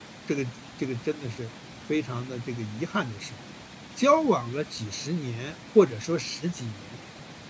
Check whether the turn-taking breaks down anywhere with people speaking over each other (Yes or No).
No